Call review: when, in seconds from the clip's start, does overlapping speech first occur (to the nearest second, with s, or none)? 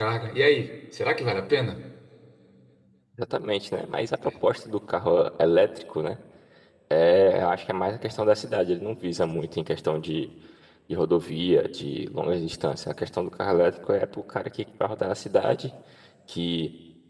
none